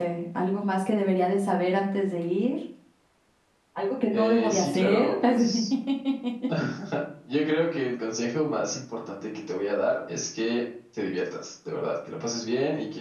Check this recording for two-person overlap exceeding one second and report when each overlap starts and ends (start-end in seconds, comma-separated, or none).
4.1-5.5